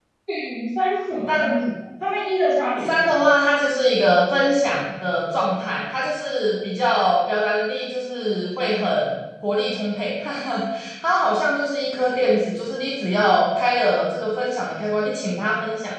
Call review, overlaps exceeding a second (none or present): none